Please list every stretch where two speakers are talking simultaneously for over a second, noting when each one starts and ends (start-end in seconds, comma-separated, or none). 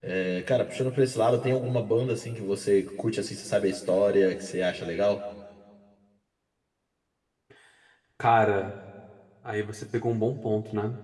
none